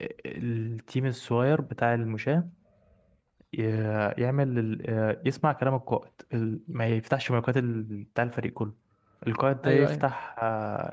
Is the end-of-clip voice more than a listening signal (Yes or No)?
No